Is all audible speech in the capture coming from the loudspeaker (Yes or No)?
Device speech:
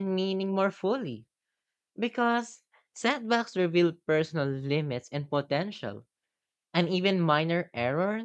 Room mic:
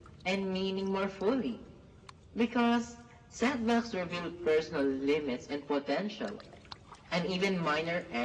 Yes